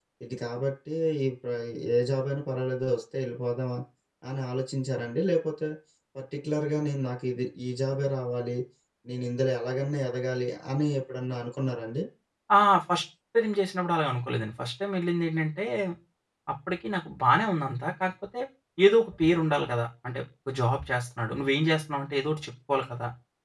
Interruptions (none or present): none